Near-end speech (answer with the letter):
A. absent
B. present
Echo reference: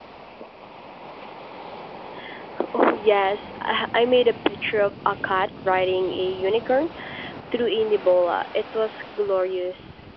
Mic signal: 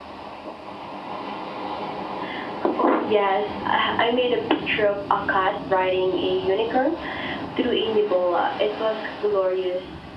A